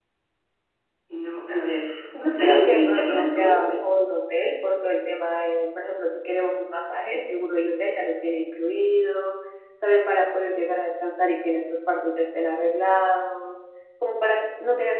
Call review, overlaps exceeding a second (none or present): present